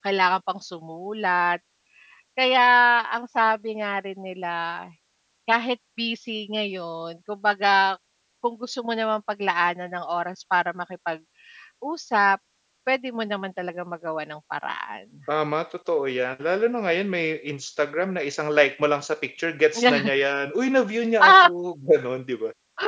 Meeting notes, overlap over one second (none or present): none